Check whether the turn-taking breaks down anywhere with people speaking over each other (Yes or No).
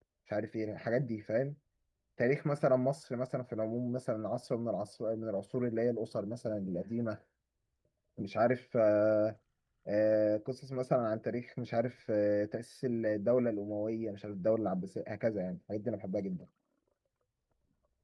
No